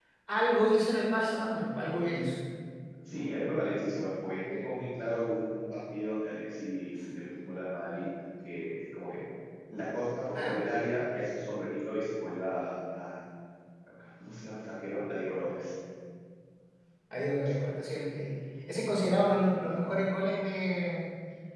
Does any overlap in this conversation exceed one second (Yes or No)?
No